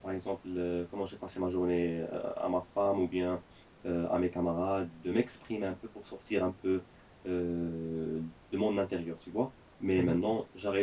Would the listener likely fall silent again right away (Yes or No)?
Yes